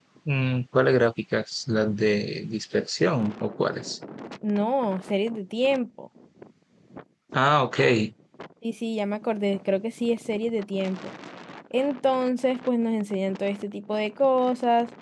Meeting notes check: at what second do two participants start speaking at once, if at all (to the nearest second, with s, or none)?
none